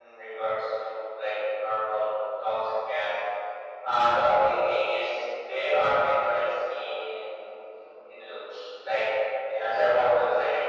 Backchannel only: Yes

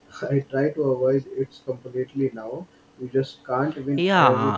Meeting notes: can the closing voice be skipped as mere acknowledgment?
No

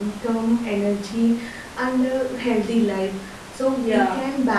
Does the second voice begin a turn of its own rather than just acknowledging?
No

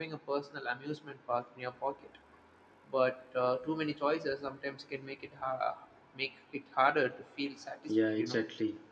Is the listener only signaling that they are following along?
No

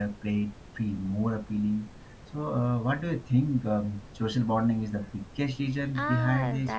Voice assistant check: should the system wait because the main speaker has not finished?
No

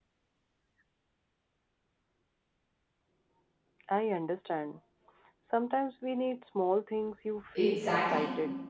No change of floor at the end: No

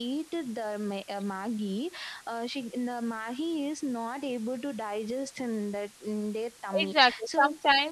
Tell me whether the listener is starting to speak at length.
Yes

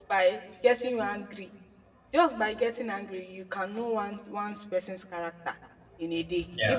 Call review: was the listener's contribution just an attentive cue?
Yes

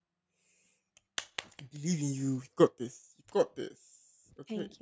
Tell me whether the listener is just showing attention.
No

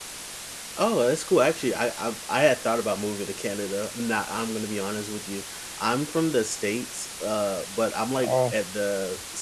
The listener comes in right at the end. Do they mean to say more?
No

